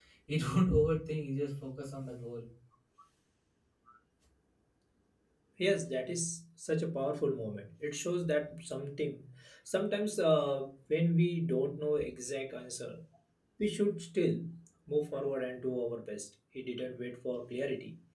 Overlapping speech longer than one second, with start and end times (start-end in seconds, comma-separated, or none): none